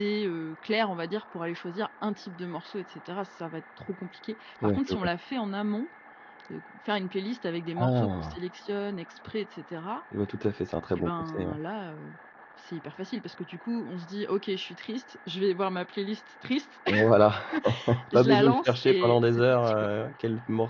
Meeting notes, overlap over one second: present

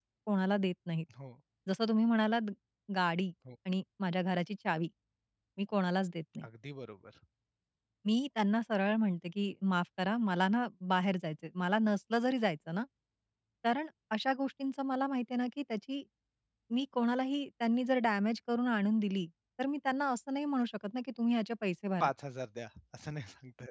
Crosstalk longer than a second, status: none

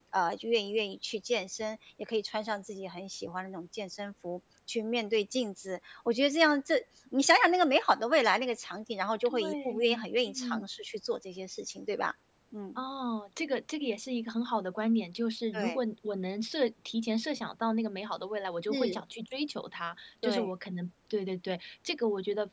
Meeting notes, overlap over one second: present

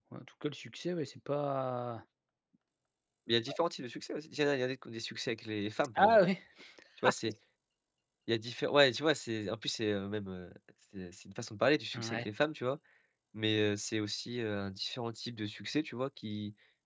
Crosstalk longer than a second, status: none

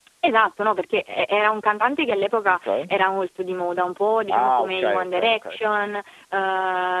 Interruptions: present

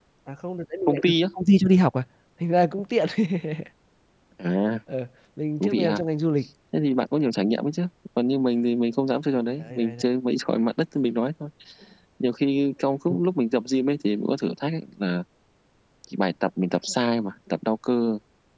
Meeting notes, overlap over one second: none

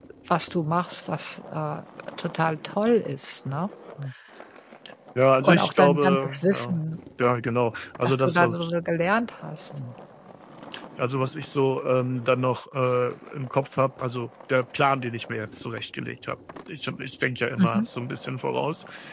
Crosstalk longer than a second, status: present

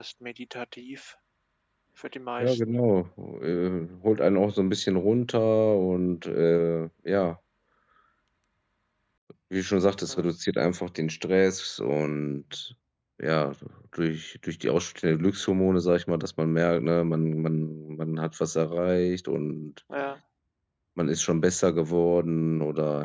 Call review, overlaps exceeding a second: none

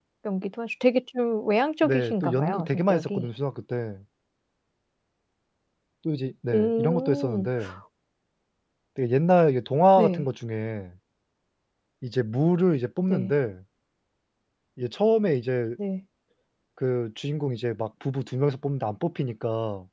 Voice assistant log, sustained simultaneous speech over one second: present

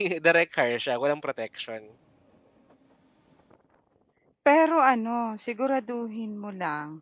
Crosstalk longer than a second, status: none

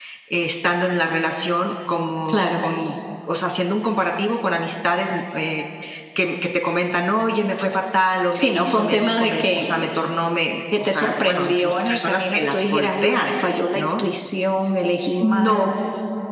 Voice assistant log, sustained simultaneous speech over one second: present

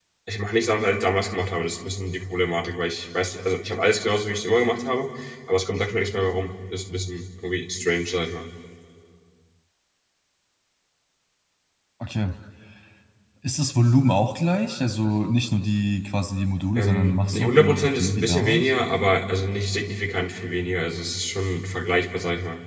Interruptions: present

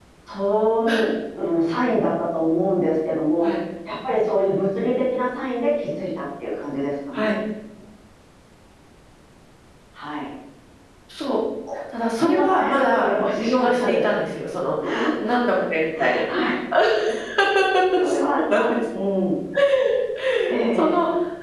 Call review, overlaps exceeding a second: present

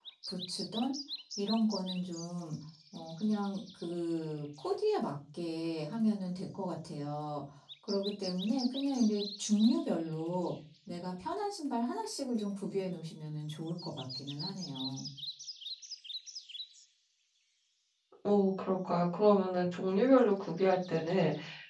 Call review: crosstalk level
none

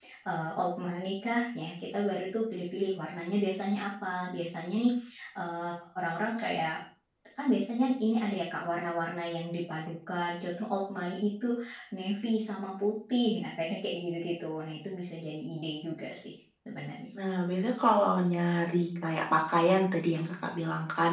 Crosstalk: none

